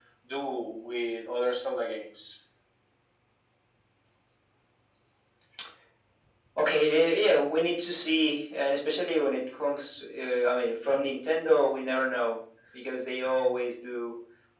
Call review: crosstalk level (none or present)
none